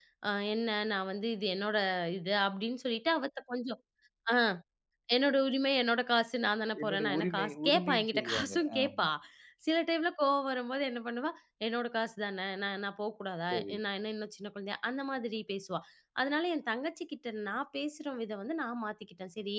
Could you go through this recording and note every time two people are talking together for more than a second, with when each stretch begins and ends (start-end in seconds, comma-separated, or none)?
6.8-9.1